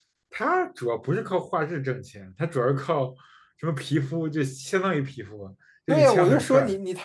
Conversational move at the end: taking over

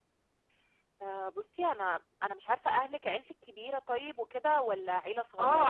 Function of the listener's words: taking over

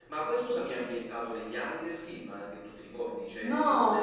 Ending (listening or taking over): taking over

